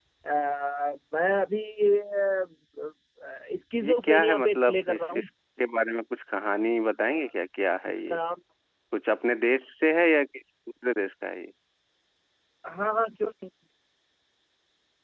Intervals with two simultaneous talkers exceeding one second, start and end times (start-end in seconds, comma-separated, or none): 3.8-5.3